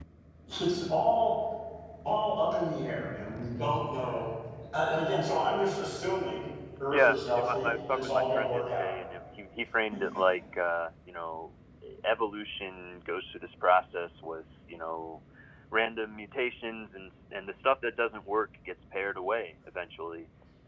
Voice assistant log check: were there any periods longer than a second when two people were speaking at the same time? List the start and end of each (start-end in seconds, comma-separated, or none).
6.9-8.9